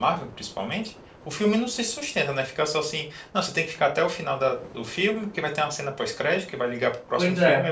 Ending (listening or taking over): listening